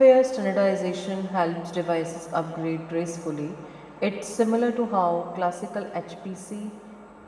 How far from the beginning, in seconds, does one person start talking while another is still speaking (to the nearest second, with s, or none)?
none